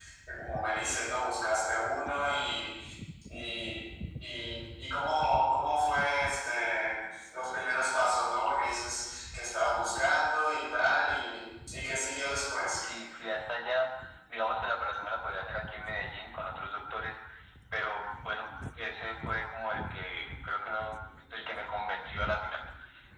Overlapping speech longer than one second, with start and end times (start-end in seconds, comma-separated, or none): none